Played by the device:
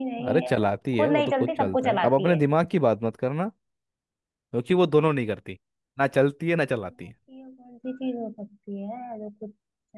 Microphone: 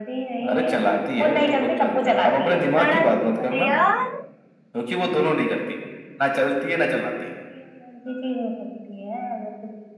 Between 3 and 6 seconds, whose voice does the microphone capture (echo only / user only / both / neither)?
both